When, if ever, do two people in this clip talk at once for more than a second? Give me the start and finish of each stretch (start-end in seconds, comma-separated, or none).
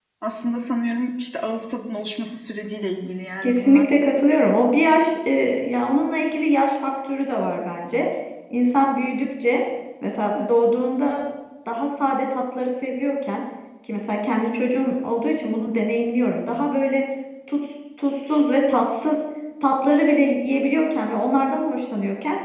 none